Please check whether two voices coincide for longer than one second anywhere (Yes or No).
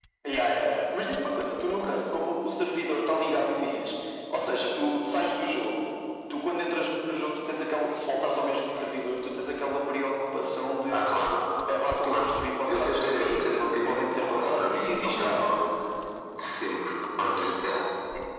Yes